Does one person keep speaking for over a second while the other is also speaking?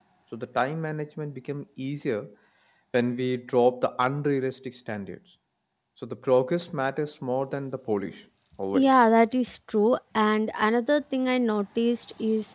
No

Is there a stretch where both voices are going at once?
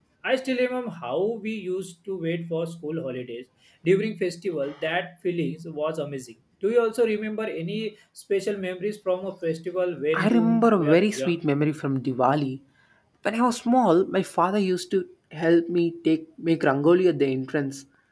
Yes, from 10.1 s

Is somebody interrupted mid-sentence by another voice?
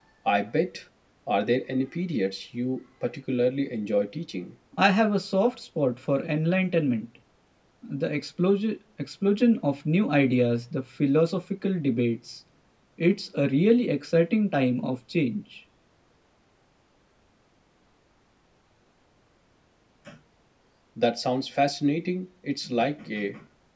No

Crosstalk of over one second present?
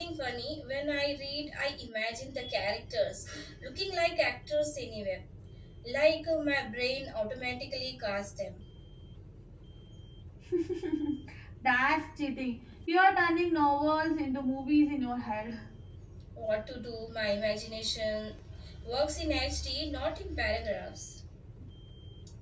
No

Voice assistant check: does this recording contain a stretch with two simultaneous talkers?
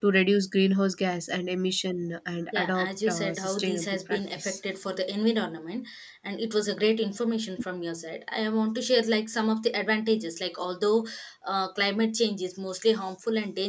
Yes, from 2.5 s

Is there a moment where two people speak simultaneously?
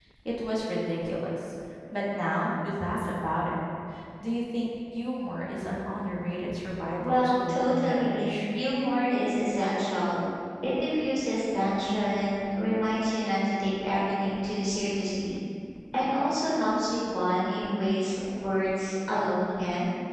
Yes, from 7.0 s

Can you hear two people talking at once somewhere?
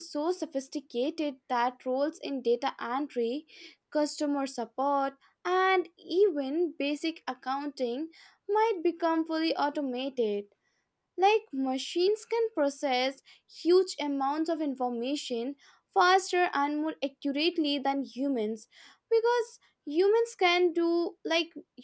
No

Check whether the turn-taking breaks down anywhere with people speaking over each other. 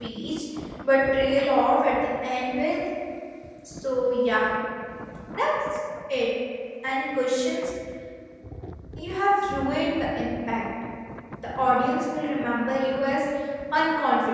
No

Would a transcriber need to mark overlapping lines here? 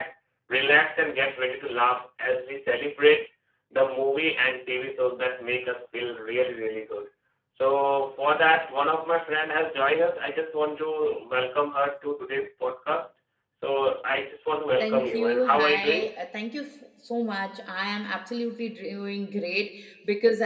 Yes, from 14.8 s

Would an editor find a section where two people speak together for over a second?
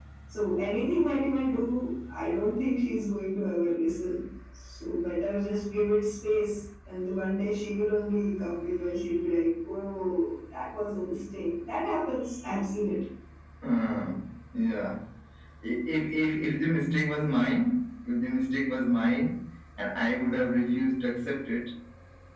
No

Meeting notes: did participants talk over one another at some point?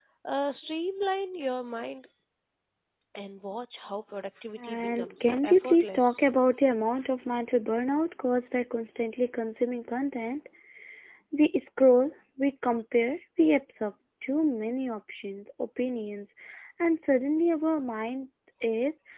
Yes, from 4.6 s

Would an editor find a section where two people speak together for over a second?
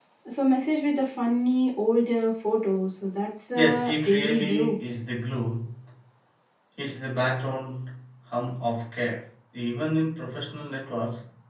Yes, from 3.5 s

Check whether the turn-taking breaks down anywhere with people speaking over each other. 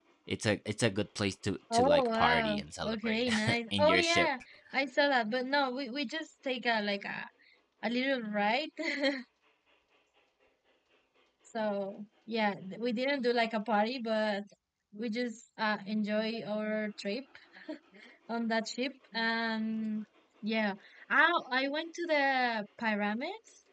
Yes, from 1.7 s

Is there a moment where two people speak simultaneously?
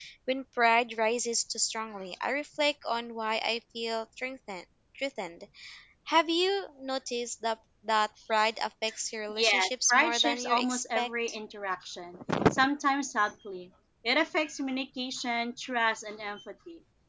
Yes, from 9.3 s

